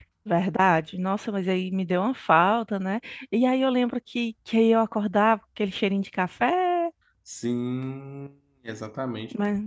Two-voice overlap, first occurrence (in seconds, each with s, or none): none